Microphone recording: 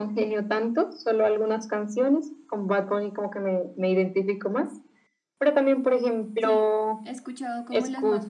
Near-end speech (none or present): present